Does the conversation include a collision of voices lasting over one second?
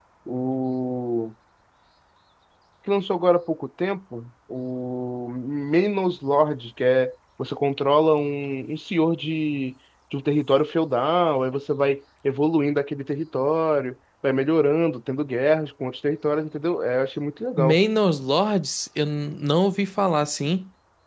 No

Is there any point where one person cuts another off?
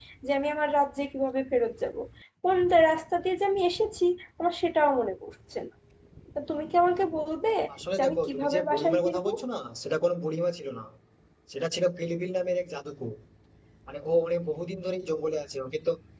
Yes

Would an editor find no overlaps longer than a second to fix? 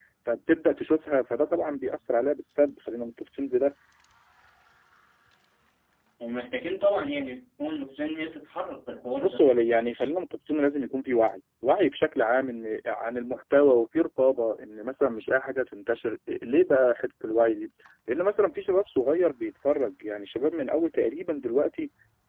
Yes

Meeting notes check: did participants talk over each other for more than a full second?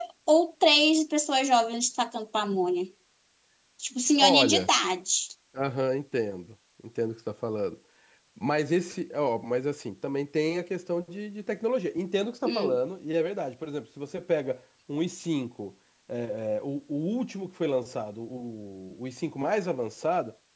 No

